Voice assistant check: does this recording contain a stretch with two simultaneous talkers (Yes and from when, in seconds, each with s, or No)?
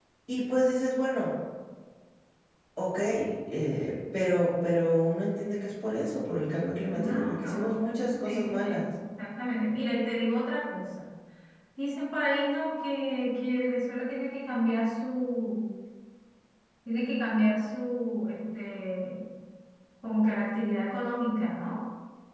Yes, from 6.9 s